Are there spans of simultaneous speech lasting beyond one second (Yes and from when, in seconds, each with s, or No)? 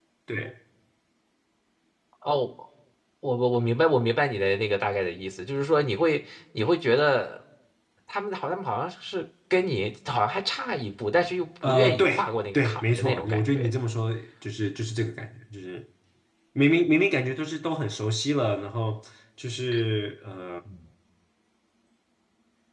Yes, from 11.6 s